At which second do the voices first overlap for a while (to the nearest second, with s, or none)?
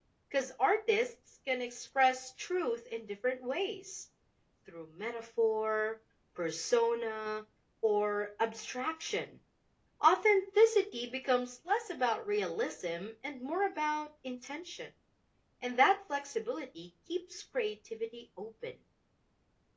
none